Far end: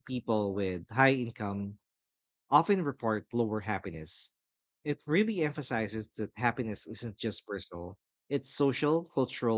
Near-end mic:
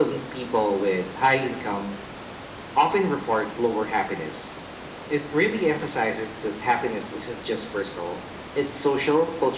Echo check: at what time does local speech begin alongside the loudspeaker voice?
none

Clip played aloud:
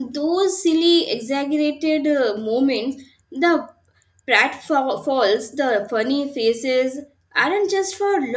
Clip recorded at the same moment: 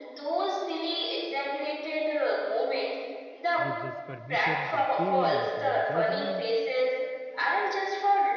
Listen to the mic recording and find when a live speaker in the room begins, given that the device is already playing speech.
3.6 s

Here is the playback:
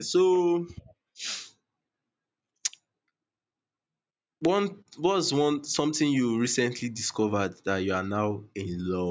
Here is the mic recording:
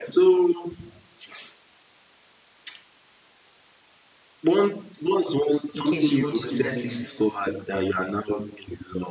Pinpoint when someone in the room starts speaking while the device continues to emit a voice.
5.7 s

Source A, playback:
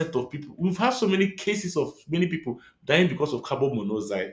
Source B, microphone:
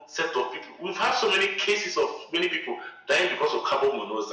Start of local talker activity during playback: none

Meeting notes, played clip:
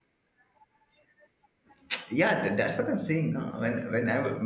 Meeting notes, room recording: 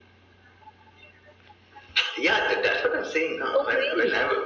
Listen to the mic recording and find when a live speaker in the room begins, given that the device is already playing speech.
3.5 s

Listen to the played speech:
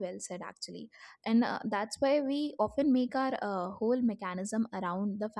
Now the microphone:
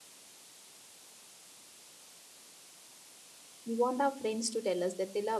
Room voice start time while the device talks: 3.6 s

